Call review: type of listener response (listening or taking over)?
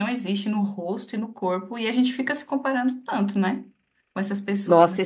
taking over